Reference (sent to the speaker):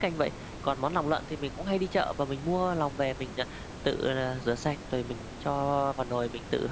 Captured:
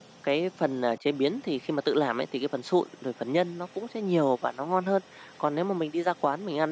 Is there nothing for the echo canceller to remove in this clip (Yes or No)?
Yes